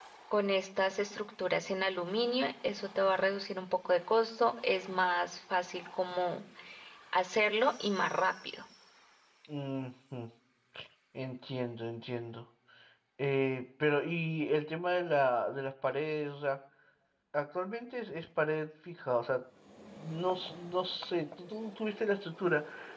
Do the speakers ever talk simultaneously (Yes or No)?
No